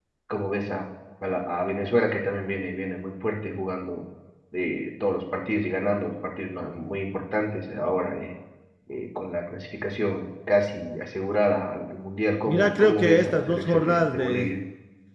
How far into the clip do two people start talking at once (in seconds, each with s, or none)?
12.5 s